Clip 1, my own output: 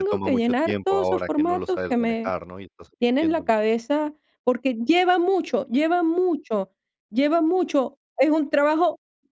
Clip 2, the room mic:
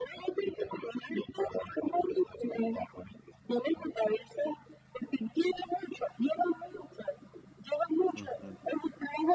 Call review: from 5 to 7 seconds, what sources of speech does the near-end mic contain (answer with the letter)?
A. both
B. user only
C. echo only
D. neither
C